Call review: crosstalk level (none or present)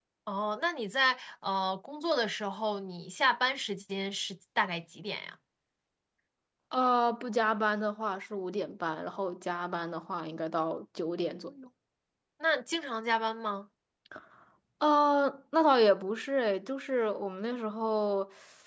none